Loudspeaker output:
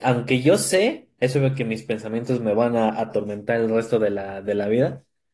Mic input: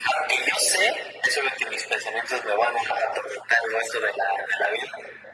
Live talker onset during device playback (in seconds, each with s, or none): none